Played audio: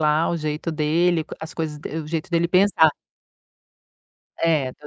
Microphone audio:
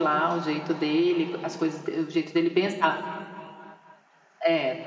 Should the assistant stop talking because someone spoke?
No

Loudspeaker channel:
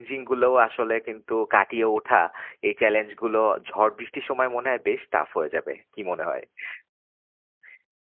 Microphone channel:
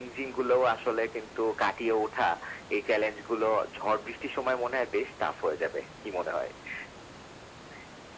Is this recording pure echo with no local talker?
Yes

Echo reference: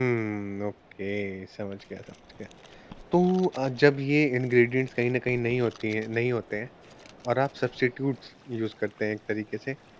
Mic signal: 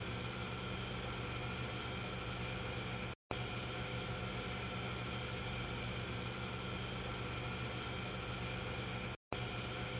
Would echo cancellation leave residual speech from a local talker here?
No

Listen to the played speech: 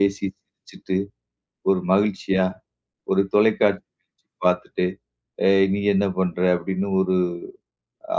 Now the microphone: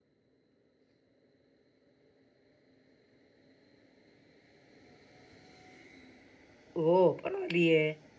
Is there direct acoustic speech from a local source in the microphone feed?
Yes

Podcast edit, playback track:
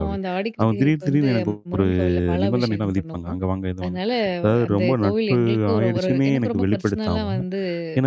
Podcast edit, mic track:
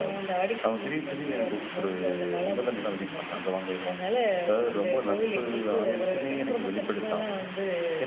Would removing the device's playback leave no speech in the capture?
Yes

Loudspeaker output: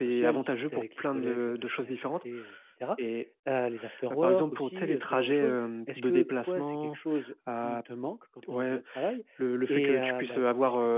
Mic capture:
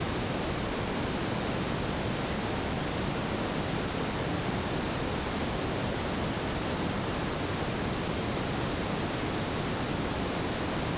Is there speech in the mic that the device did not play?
No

